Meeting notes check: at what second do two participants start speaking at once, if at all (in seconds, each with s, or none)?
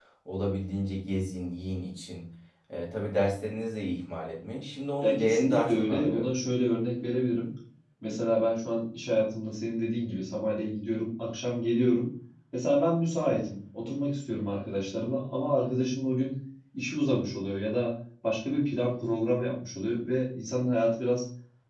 5.0 s